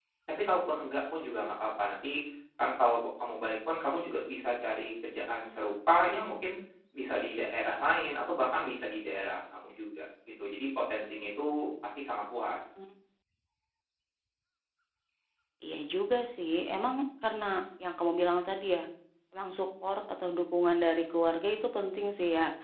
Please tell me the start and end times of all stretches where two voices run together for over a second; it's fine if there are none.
none

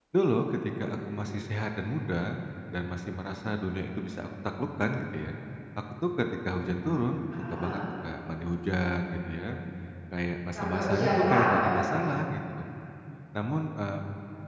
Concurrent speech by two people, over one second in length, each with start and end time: 10.6-11.9

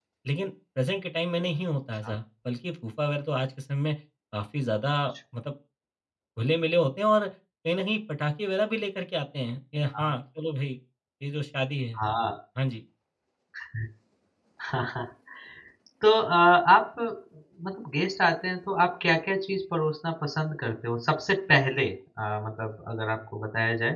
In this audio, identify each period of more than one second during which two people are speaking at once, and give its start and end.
none

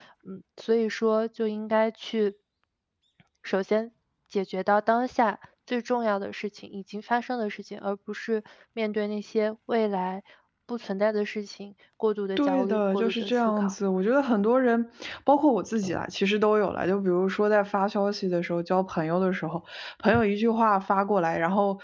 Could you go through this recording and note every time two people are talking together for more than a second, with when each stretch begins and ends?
12.4-13.7

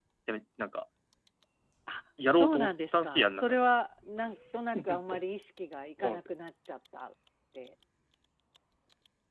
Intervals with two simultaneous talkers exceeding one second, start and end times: 2.3-3.6

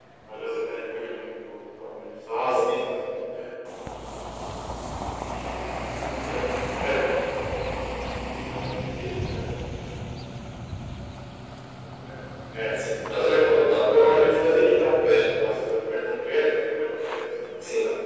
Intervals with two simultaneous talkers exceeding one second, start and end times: 13.1-14.3

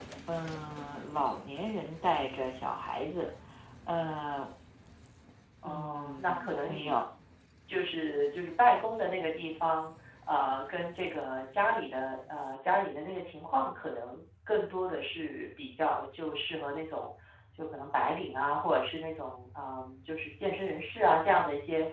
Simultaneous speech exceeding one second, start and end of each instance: 5.6-7.0

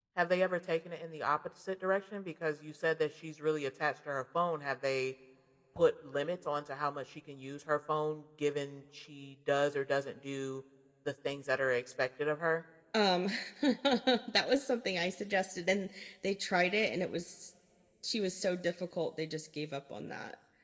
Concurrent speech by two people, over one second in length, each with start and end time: none

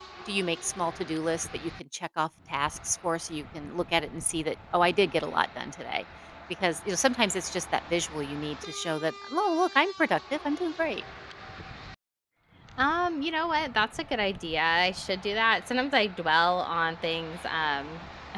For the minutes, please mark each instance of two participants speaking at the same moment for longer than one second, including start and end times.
none

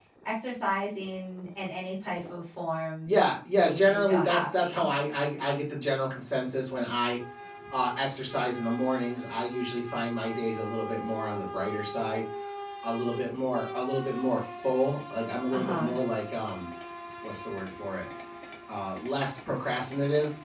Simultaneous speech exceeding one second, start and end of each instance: 3.6-4.9

